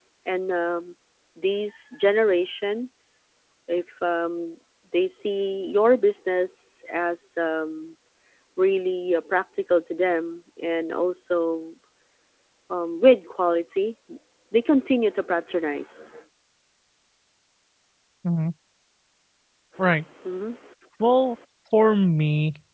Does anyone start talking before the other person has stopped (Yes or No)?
No